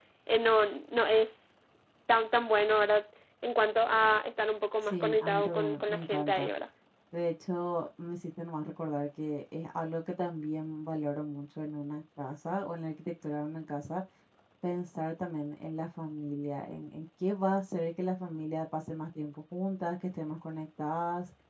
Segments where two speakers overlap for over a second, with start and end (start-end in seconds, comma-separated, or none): 4.9-6.5